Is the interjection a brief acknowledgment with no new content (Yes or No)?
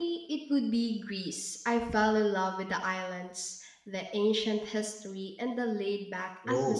No